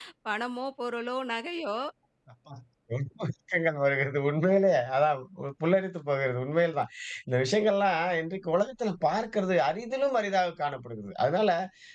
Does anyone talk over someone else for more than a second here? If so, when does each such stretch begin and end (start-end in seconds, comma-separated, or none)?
none